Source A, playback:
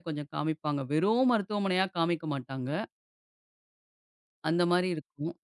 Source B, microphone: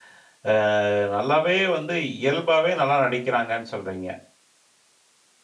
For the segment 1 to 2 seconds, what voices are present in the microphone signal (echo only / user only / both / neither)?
user only